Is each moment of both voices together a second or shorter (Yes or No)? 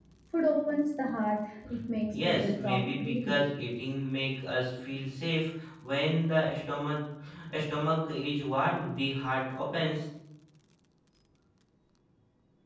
No